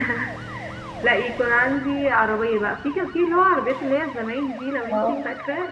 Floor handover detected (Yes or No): No